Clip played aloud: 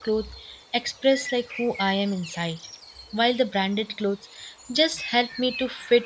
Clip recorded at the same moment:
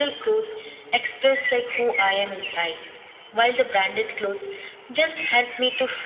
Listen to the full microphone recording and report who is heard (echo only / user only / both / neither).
echo only